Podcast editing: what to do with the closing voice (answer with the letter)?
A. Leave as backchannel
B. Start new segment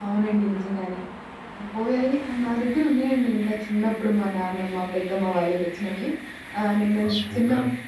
A